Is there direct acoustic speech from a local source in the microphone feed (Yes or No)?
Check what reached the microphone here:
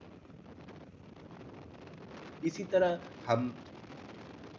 Yes